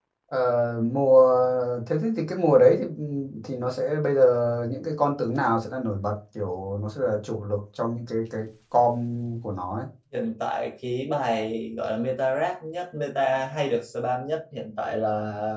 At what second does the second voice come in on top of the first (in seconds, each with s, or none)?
none